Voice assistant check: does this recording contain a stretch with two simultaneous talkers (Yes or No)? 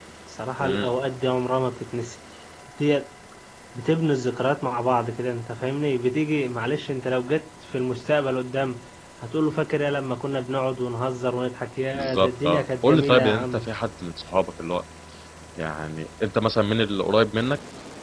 Yes